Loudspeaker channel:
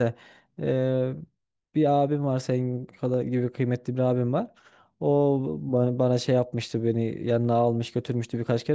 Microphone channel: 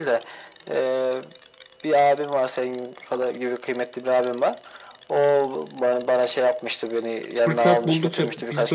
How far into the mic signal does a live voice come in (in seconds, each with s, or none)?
7.4 s